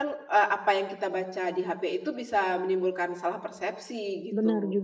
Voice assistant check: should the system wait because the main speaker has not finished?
No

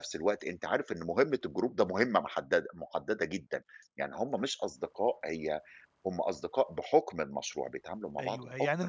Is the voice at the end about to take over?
Yes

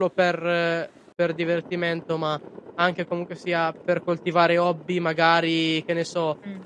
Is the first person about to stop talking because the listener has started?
No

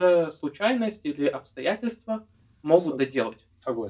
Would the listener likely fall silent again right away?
No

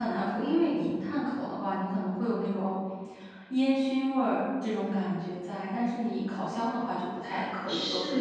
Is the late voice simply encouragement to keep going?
No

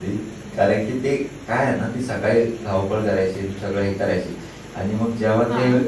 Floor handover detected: No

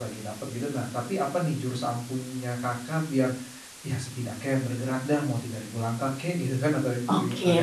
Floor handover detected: Yes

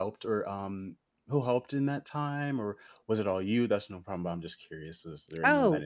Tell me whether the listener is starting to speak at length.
Yes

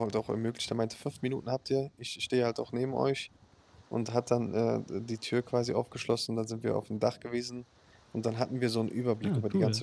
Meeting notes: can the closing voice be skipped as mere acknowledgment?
Yes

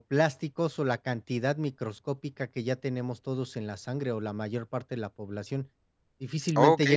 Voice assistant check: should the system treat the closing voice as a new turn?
Yes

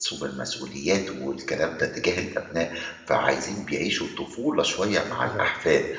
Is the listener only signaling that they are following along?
Yes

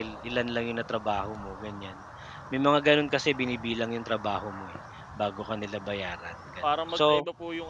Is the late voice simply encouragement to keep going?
No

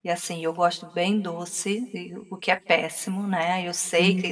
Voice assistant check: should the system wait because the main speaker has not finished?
Yes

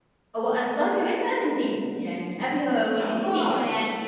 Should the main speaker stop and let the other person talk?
Yes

